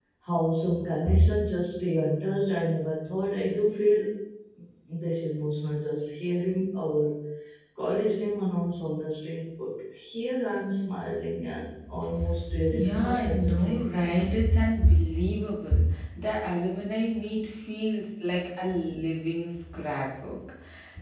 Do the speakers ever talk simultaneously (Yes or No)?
Yes